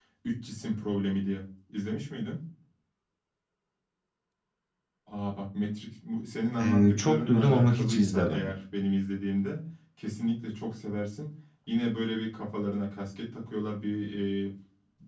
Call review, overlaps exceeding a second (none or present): present